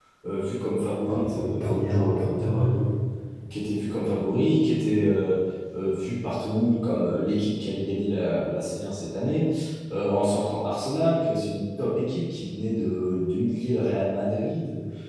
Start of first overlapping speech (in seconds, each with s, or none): 1.1 s